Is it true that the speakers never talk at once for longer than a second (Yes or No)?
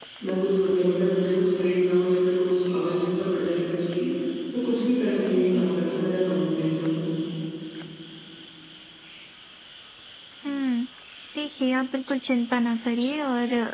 Yes